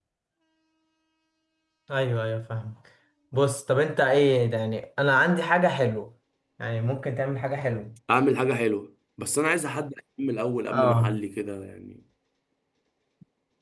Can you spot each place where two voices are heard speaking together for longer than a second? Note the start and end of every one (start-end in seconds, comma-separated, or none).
none